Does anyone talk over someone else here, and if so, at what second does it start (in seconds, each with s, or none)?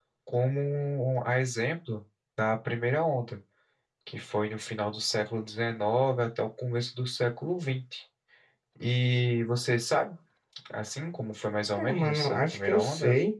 11.8 s